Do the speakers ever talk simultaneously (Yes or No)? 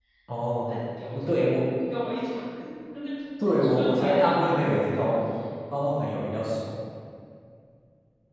Yes